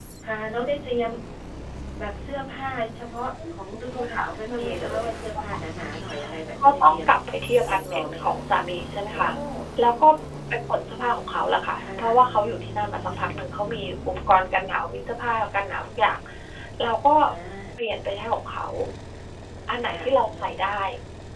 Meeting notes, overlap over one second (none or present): present